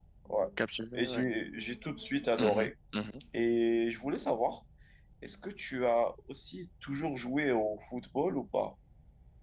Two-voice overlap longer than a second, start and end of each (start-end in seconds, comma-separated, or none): none